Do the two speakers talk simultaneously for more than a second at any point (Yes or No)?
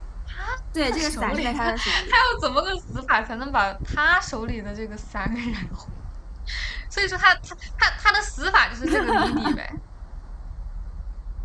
Yes